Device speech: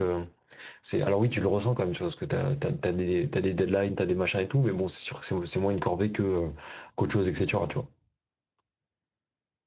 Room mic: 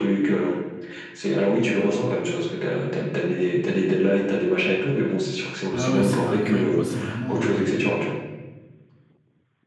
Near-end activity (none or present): present